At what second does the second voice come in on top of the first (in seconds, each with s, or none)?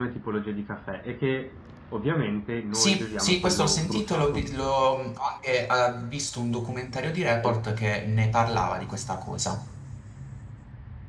2.7 s